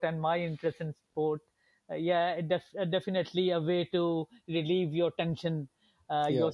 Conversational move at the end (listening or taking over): listening